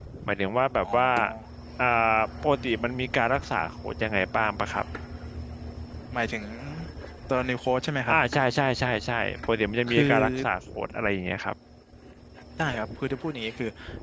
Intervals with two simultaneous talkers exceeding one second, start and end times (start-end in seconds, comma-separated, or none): none